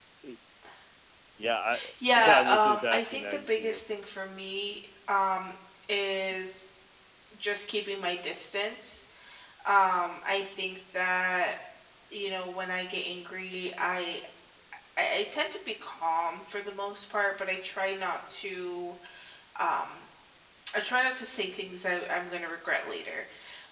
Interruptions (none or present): present